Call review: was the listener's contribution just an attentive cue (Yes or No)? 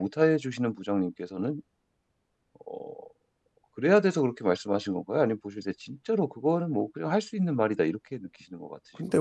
No